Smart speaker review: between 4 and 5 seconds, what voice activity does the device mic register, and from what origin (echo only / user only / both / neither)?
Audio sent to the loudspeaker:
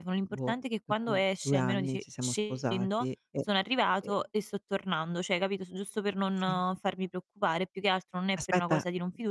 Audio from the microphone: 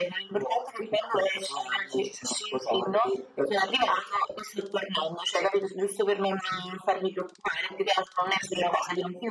echo only